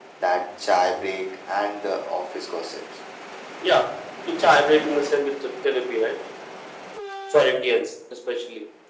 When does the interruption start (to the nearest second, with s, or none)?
none